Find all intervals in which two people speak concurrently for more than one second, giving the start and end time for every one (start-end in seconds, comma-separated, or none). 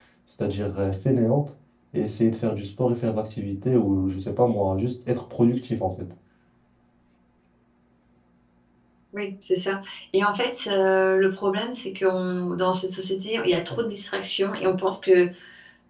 none